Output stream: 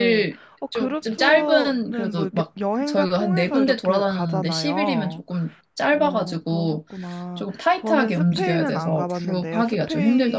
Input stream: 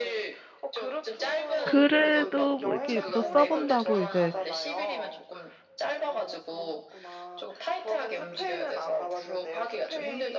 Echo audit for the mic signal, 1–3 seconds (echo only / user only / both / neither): both